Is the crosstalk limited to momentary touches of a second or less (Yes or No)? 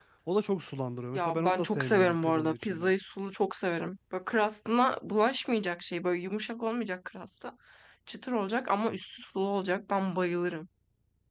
No